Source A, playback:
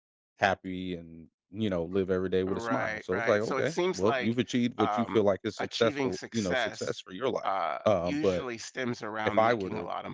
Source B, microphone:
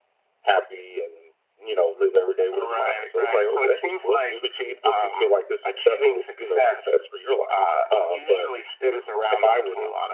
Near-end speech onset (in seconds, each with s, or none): none